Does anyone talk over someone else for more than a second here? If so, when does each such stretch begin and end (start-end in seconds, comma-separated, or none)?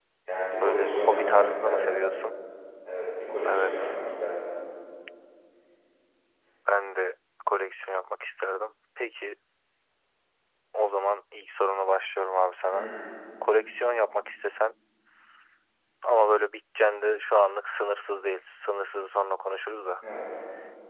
0.6-2.0